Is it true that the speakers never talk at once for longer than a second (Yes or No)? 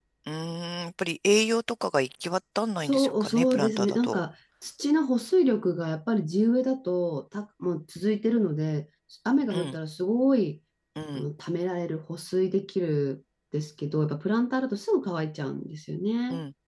No